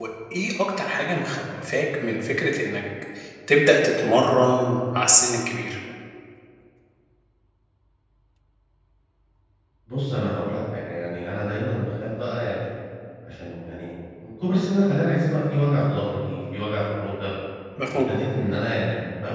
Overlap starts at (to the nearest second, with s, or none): none